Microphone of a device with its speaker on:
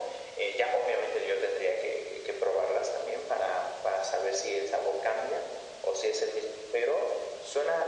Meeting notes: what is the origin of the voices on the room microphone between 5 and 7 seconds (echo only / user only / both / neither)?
echo only